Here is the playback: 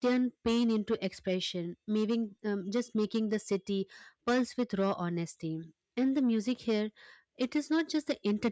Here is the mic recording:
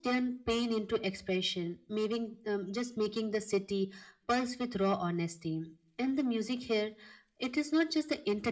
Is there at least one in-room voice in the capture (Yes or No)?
No